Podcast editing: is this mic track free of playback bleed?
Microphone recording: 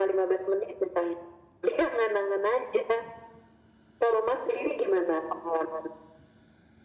No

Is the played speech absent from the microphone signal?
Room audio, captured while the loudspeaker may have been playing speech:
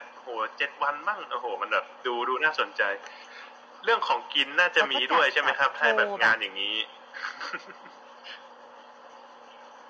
No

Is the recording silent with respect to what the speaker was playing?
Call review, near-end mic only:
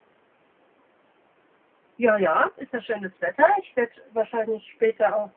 Yes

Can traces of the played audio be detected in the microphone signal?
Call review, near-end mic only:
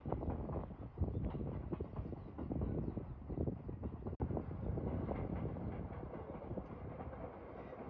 No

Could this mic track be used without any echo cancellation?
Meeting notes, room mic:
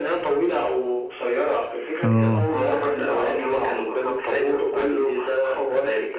No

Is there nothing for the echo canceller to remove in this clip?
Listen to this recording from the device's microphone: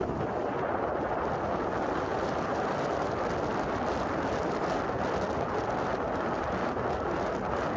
Yes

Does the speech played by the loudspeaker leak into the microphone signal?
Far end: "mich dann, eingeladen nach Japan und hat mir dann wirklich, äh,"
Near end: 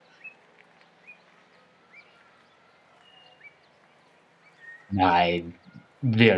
No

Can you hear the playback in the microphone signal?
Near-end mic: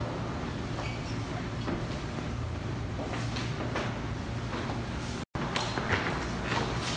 No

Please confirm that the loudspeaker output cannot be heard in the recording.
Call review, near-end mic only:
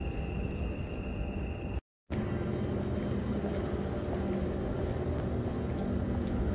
Yes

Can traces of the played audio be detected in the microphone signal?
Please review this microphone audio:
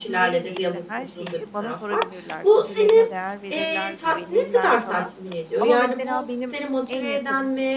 Yes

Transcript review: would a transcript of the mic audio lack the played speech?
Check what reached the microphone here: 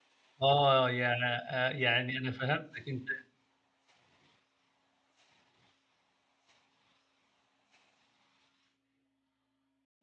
Yes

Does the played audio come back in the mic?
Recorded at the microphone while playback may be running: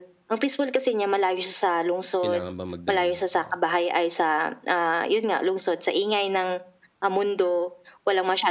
Yes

